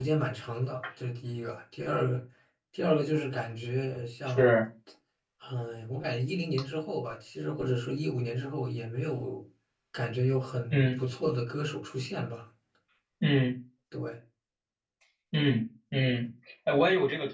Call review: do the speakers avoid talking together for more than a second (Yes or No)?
Yes